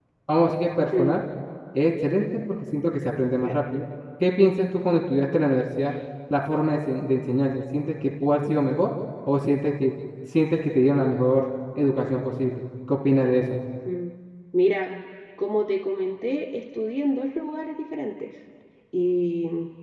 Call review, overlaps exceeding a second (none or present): none